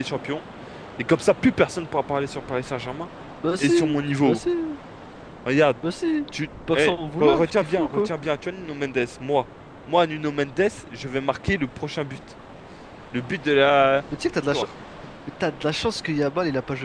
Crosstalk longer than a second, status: present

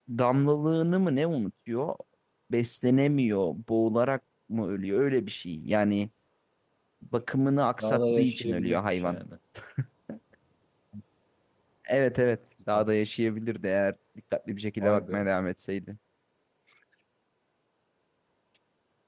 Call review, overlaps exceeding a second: present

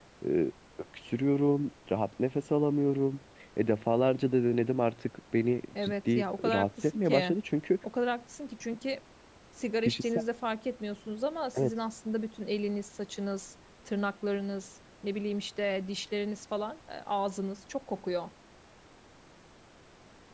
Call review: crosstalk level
present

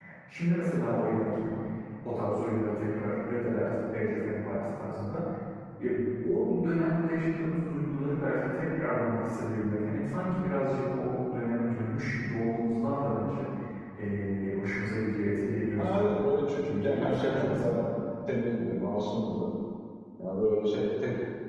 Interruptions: present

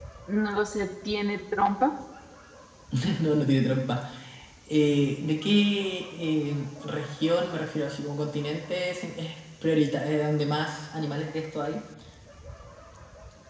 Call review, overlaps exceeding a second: none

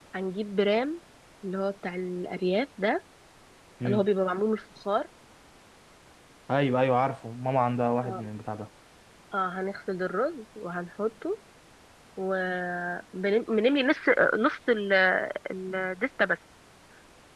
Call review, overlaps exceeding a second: none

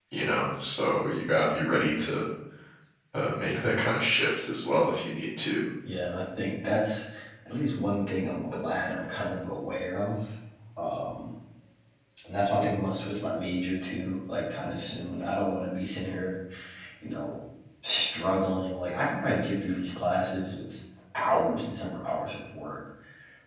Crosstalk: none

